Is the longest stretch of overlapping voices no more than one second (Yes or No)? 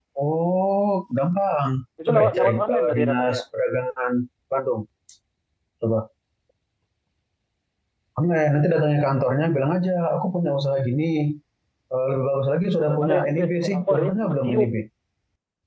No